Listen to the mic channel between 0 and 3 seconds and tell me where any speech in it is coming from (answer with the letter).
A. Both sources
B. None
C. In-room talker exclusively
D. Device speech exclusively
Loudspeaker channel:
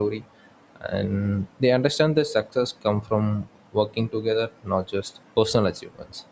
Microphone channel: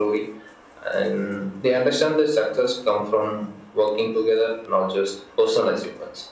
D